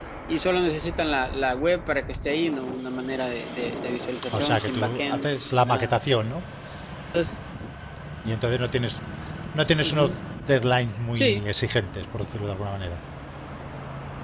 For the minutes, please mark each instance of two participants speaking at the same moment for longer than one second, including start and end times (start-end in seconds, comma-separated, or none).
4.4-5.9